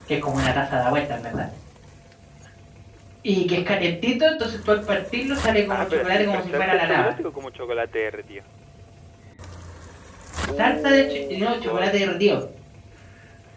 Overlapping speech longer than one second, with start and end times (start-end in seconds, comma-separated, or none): 5.7-7.1, 10.6-12.0